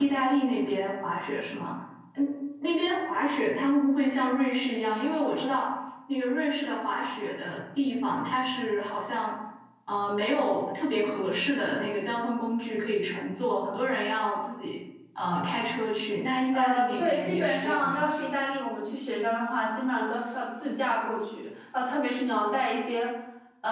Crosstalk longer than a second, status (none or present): present